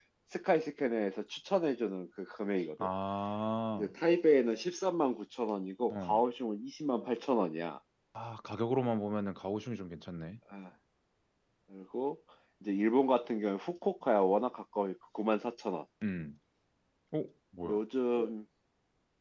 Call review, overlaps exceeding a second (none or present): none